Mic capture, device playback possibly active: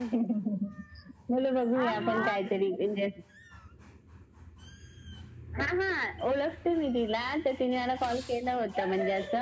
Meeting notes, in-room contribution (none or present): present